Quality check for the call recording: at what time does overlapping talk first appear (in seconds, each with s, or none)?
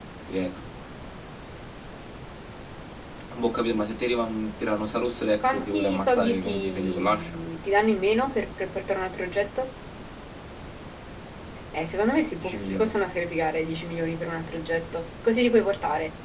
5.4 s